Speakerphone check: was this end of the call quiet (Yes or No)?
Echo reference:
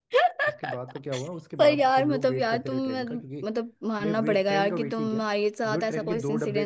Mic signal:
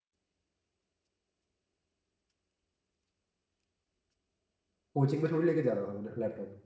No